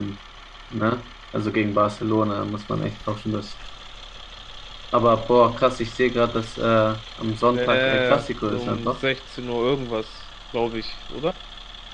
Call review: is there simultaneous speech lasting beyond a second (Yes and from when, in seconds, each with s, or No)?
Yes, from 7.5 s